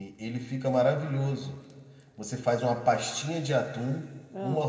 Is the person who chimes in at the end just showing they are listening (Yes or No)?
Yes